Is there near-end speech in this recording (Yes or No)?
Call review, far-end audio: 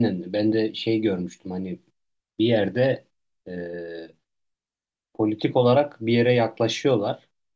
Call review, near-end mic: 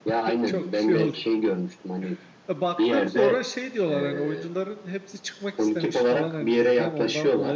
Yes